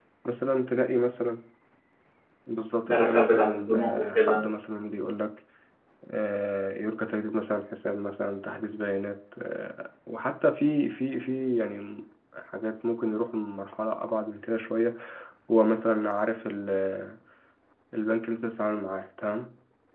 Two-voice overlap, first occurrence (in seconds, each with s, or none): 2.9 s